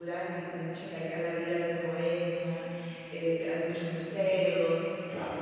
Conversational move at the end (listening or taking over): listening